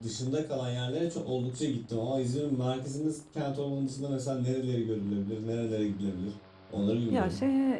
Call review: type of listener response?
taking over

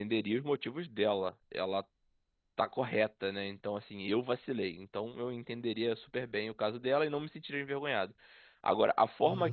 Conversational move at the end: listening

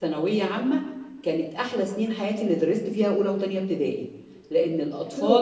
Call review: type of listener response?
listening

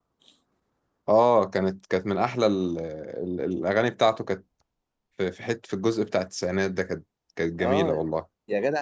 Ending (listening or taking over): taking over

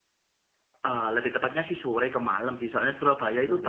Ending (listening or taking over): listening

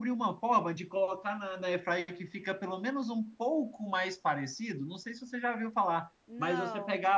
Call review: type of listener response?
listening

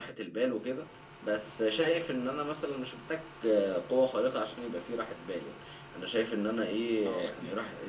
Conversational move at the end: listening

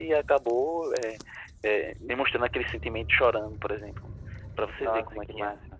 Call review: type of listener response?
taking over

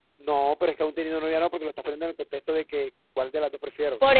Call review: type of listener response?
taking over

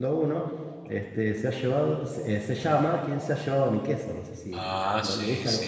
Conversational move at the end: taking over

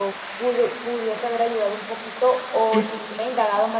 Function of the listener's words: listening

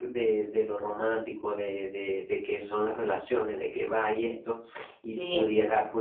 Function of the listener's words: listening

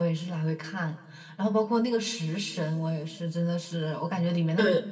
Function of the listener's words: listening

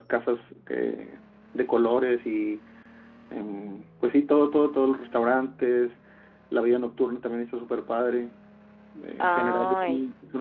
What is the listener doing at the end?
listening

